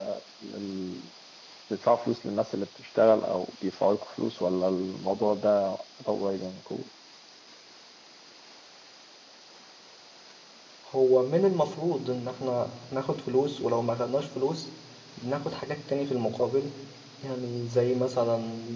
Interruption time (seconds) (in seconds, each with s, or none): none